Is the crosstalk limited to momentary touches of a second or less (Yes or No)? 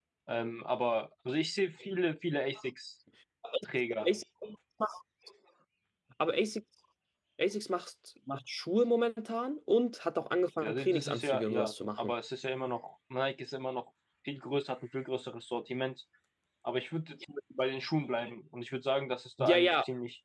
No